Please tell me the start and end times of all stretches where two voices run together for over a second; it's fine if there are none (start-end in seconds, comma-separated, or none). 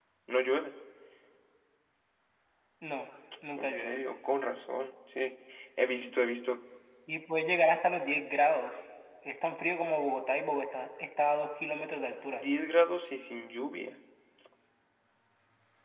none